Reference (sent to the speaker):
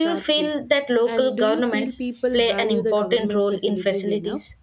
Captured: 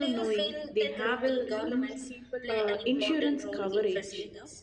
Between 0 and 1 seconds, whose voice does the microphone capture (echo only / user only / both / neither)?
both